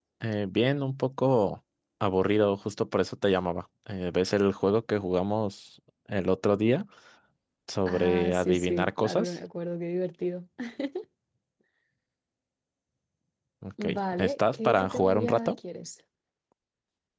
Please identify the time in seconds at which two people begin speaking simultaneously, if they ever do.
7.9 s

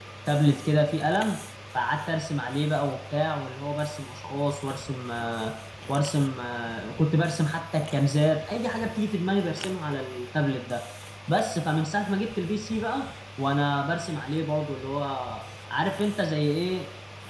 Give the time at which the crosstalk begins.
none

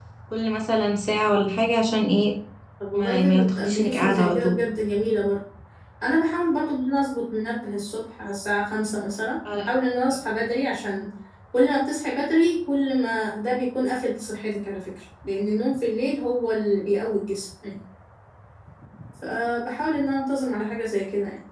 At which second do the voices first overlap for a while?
2.9 s

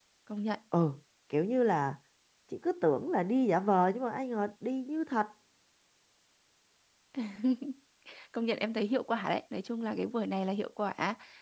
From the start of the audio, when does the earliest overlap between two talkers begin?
none

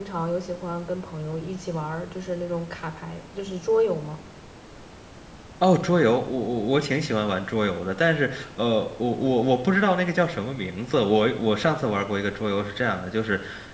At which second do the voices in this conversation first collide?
none

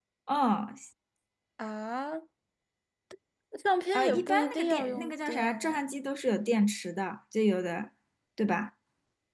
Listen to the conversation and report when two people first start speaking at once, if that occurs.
3.9 s

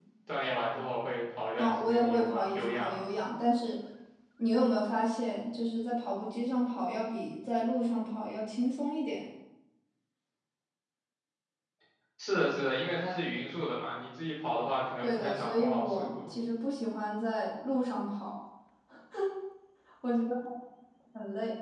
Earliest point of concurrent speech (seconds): 1.6 s

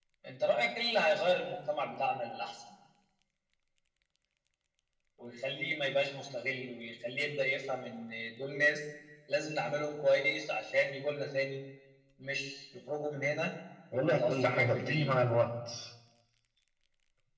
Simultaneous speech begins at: 13.9 s

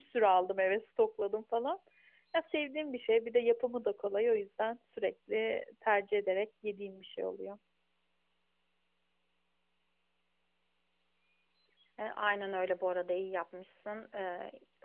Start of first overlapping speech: none

